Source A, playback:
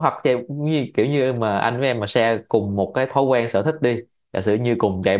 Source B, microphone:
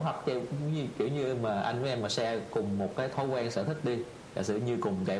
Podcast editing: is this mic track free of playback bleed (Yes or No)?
No